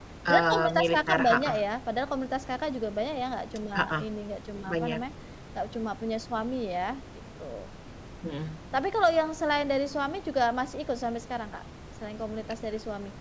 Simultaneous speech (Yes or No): Yes